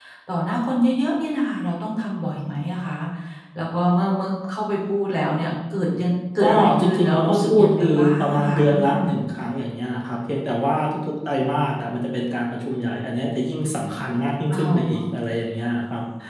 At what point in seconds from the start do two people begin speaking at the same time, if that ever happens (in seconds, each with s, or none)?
6.4 s